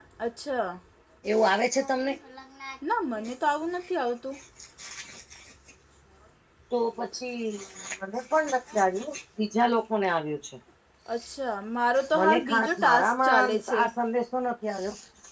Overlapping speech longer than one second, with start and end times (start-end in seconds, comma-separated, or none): 12.1-13.8